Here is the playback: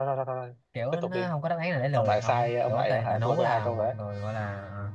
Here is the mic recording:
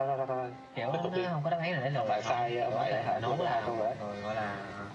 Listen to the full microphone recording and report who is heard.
both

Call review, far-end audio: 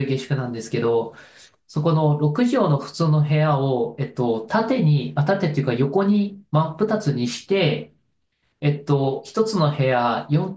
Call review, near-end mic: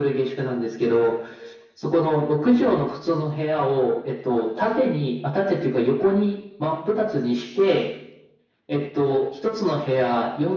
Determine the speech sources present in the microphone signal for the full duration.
echo only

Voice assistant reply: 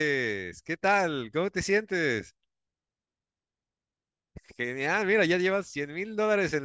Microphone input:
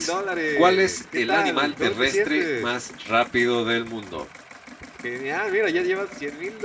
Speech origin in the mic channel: both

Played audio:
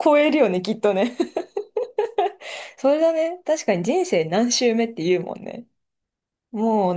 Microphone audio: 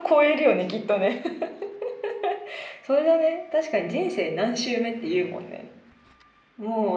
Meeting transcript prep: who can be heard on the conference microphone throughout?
echo only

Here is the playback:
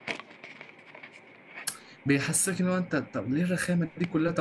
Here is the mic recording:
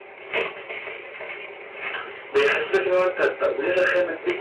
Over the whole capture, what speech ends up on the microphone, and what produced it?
echo only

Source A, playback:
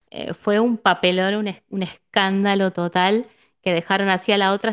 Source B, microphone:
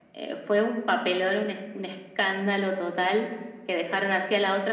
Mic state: echo only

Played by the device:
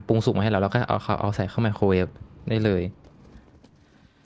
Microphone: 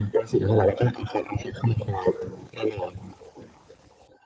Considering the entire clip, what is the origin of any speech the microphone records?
echo only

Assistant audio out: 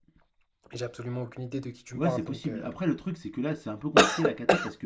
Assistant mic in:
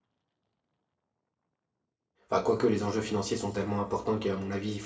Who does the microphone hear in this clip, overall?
user only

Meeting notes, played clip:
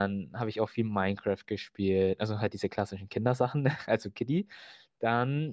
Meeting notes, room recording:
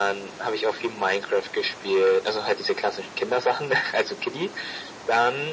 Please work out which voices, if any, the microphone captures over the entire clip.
echo only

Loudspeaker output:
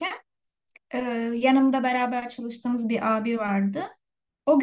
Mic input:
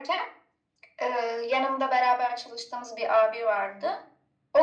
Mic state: echo only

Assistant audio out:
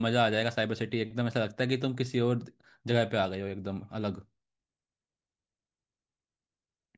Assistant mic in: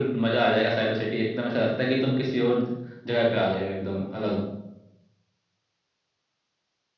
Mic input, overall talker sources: echo only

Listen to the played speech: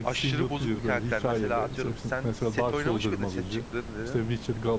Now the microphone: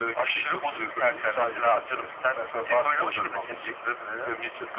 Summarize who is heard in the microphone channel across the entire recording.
echo only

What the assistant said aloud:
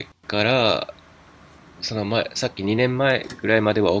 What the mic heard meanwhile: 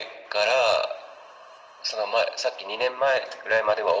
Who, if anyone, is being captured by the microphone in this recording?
echo only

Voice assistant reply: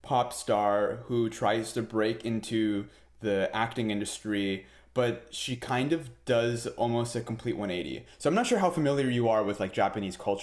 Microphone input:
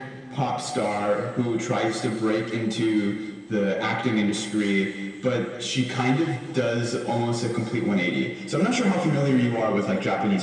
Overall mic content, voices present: echo only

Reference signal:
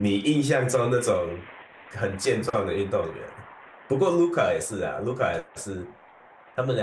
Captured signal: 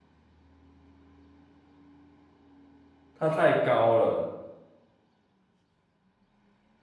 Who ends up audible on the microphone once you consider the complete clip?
user only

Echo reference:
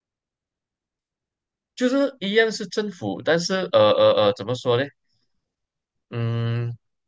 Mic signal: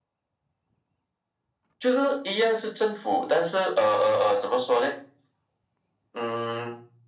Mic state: echo only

